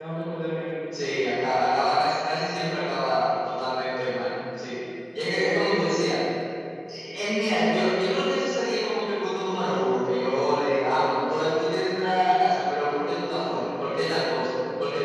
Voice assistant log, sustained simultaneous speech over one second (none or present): none